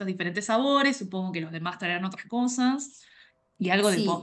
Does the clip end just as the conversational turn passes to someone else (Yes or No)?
Yes